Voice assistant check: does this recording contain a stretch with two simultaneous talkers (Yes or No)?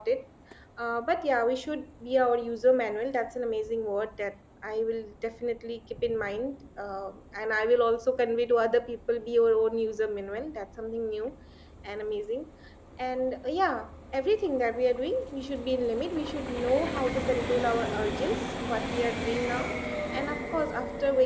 No